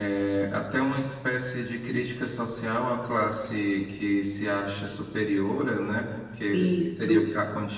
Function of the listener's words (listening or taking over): listening